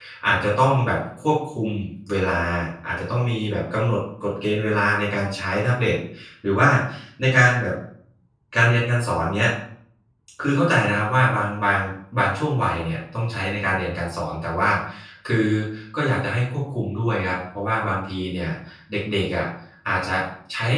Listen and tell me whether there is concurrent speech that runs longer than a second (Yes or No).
No